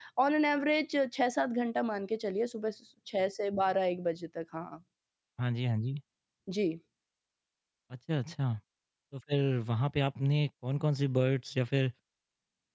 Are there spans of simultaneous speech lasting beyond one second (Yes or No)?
No